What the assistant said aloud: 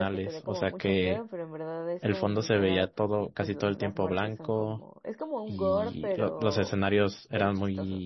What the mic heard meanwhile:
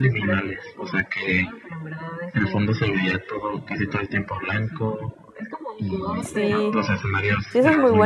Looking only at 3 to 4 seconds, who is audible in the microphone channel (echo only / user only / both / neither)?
echo only